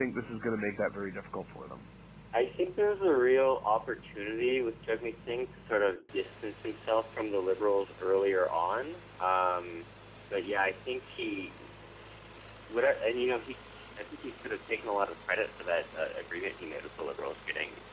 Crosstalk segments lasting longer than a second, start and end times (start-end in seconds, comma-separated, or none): none